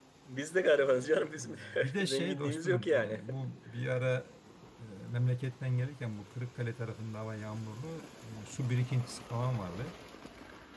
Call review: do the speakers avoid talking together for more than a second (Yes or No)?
No